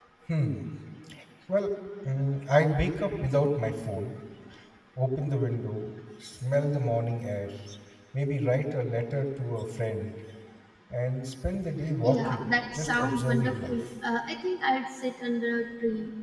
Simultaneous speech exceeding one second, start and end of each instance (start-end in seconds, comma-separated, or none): 12.1-13.8